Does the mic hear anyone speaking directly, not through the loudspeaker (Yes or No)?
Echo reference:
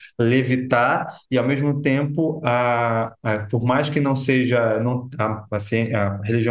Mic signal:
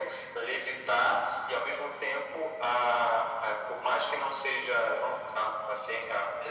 No